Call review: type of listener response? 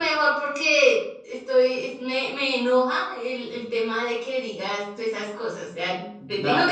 taking over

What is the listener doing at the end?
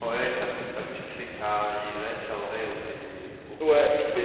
taking over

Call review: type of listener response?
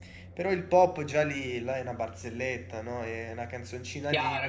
taking over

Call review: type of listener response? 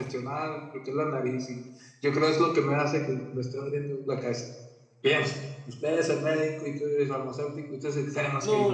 taking over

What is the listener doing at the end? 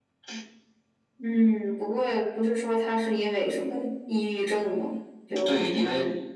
taking over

